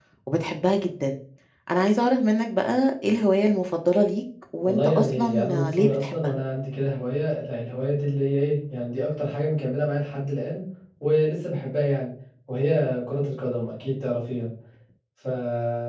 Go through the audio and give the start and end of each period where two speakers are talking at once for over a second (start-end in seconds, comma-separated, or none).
4.7-6.3